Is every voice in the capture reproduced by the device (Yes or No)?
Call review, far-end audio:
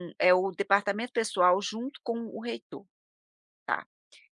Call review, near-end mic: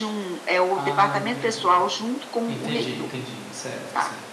No